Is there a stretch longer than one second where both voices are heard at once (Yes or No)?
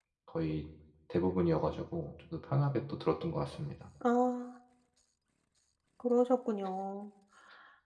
No